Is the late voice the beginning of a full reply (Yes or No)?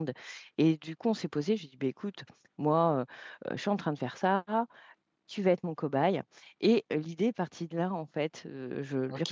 No